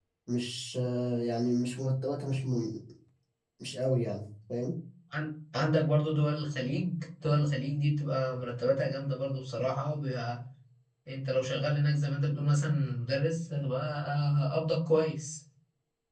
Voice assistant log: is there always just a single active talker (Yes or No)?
Yes